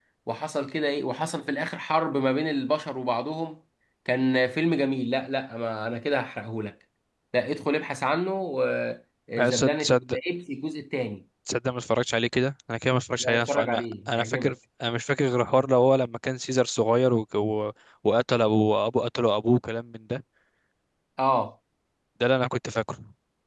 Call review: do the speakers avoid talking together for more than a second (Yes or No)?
No